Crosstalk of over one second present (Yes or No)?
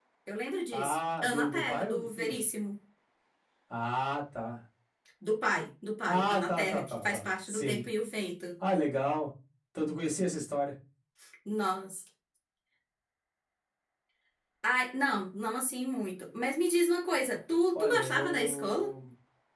Yes